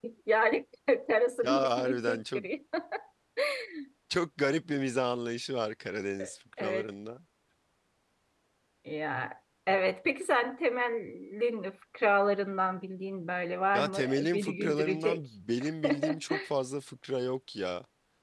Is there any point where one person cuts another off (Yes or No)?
Yes